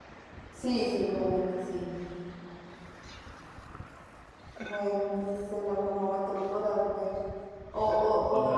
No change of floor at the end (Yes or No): Yes